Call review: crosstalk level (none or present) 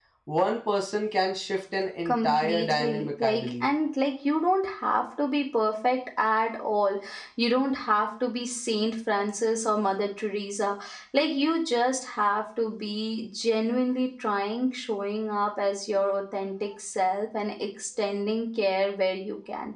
present